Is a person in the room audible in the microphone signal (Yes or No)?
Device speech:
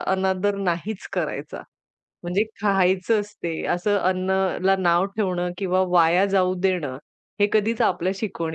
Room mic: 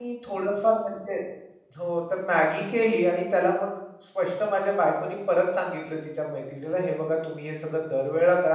Yes